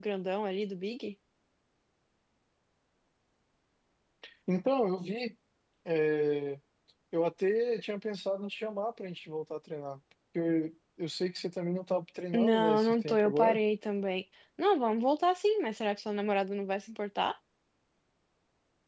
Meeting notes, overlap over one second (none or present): present